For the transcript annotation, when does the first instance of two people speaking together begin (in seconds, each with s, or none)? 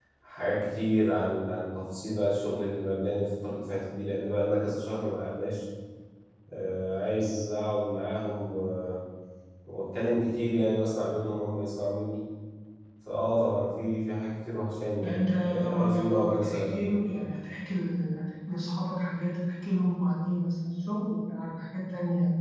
15.0 s